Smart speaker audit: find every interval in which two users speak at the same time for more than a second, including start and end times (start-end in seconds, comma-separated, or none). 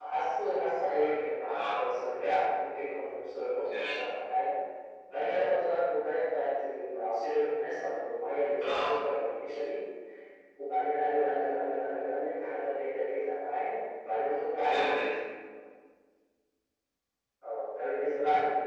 none